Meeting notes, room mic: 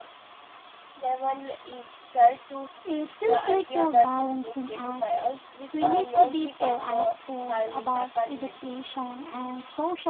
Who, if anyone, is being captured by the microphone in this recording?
echo only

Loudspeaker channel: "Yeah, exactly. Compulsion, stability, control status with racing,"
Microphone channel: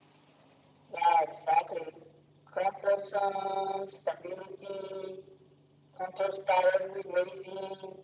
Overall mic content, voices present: echo only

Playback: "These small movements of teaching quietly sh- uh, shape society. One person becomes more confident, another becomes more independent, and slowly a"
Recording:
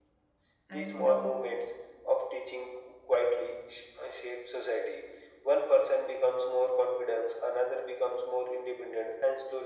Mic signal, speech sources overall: both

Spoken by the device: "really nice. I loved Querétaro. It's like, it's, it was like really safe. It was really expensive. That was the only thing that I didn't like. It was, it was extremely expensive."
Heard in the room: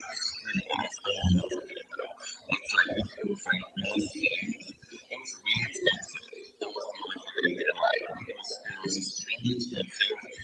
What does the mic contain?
echo only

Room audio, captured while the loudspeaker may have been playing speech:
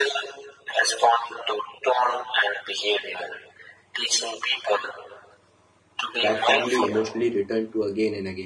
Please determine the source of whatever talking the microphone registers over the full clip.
both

